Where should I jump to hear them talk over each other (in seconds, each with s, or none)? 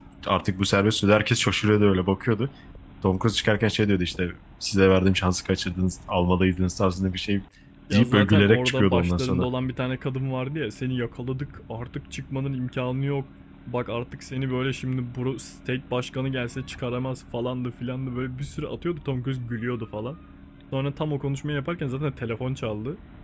7.9 s